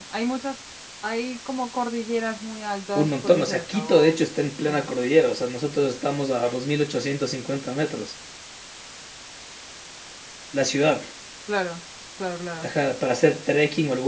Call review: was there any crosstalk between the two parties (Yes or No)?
Yes